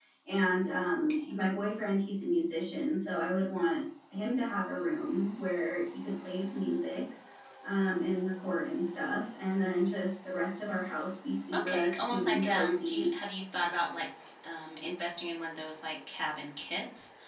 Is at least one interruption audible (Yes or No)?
Yes